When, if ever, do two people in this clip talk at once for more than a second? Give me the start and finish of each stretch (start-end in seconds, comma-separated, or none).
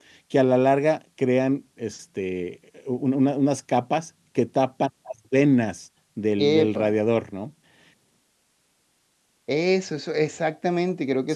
none